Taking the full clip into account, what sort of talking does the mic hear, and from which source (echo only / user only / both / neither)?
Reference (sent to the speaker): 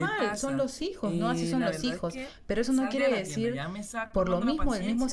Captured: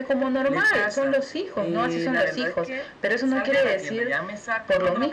echo only